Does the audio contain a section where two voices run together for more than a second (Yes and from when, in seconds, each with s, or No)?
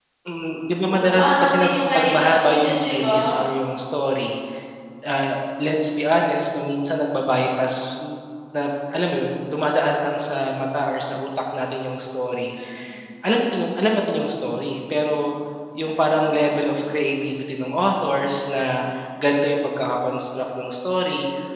Yes, from 0.9 s